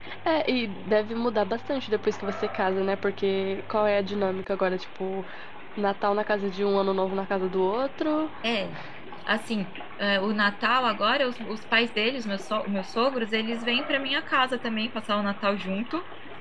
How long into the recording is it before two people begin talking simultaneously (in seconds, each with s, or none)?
none